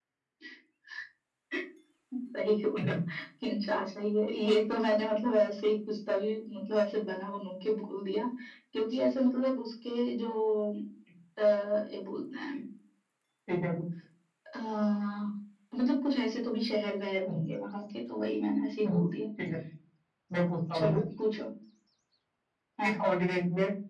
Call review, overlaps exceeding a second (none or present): none